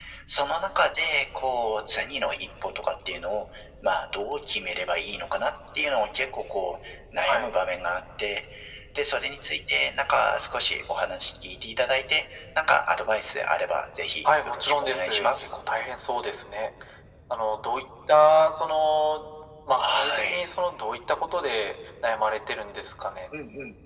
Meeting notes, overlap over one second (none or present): present